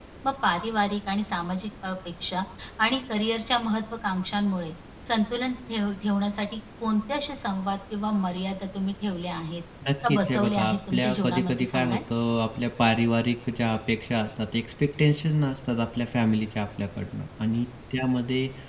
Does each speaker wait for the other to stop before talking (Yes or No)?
No